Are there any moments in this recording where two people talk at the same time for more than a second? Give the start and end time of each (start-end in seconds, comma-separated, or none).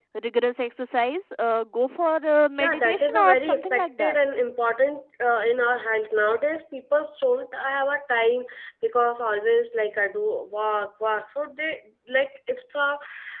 2.6-4.1